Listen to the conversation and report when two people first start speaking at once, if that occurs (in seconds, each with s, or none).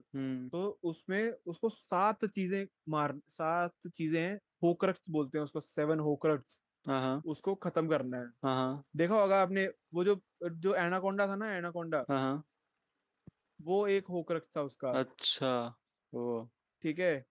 none